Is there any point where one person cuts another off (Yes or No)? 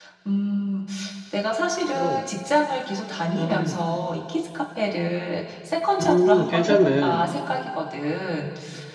Yes